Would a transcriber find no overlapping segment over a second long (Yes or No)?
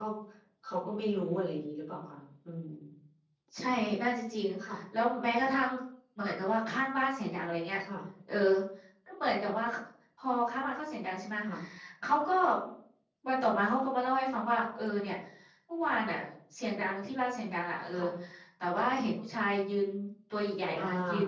Yes